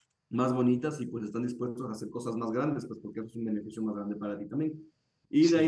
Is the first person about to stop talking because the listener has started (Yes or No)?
No